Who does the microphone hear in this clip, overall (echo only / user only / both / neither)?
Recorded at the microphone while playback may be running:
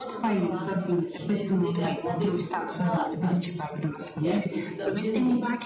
both